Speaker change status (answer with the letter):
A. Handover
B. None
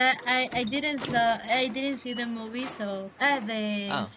B